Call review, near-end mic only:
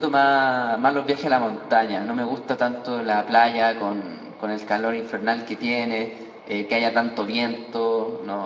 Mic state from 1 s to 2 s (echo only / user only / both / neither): echo only